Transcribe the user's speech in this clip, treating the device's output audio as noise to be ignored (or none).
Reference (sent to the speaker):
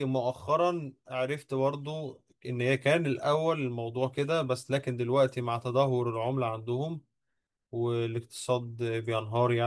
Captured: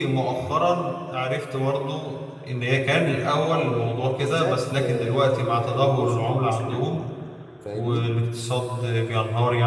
على ال- بالذات آه، ال- الجزء المسلم منهم يعني فاهمني